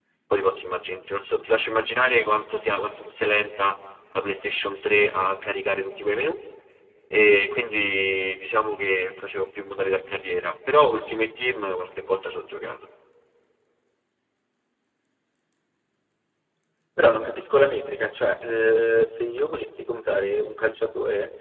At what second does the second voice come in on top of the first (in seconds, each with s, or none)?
none